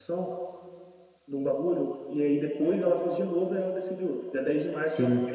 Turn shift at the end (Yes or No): No